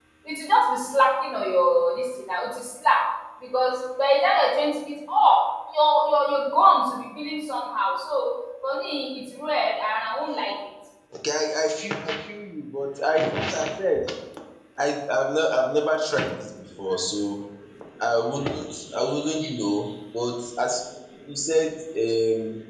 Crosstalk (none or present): none